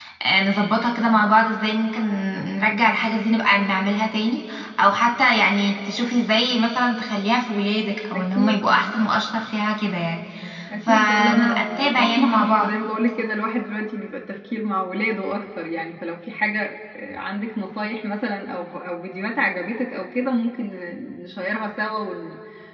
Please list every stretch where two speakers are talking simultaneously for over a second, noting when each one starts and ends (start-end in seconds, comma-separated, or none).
10.8-12.7